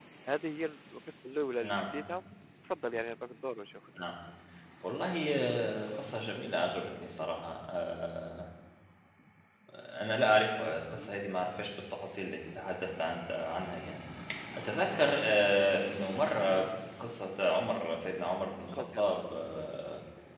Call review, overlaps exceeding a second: none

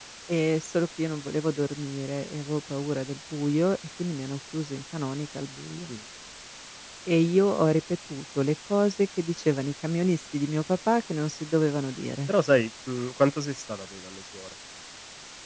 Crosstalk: none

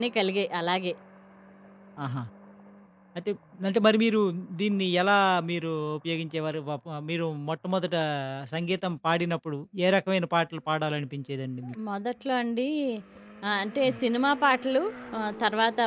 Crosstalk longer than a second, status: none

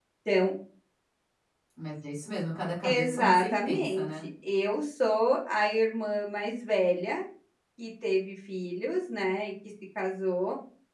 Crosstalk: present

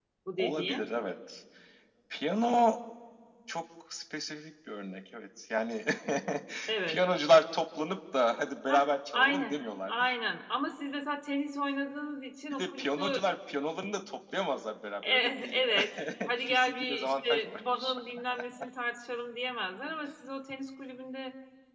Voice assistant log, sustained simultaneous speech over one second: present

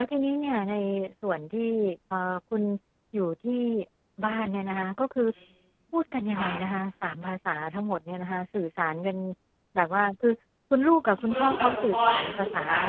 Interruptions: present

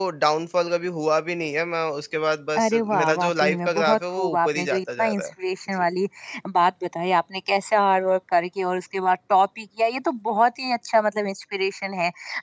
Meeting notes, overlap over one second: present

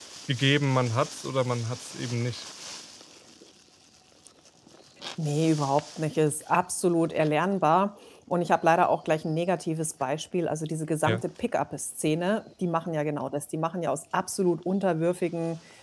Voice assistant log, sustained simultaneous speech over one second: none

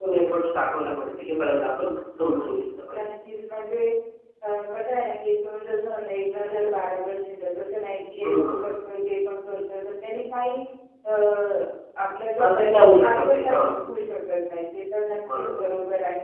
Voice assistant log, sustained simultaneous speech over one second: present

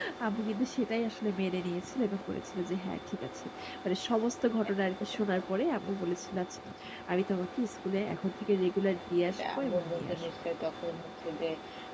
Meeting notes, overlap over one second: present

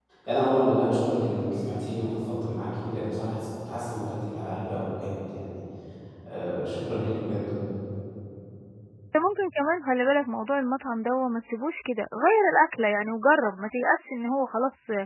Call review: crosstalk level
none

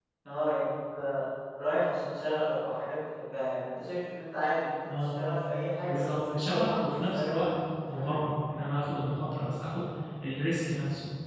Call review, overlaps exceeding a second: present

